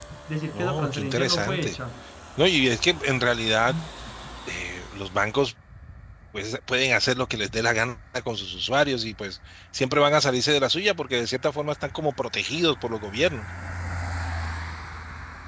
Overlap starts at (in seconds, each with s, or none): 0.5 s